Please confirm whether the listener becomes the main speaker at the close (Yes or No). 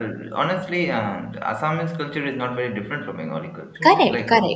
Yes